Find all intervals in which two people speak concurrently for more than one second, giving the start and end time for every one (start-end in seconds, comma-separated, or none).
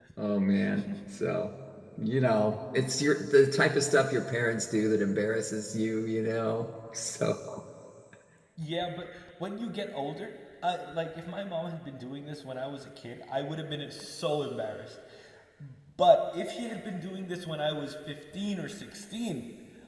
none